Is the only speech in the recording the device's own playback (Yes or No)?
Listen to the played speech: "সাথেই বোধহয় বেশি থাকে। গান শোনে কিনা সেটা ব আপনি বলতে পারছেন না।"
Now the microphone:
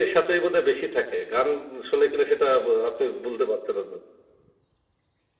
Yes